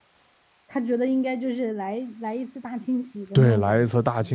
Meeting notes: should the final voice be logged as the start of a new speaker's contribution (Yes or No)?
Yes